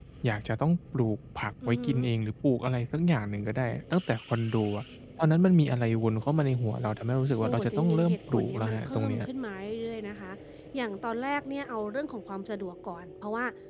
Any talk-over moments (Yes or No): Yes